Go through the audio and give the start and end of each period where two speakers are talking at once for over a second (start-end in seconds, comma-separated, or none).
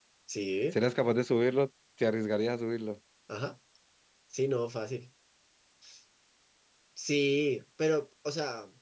none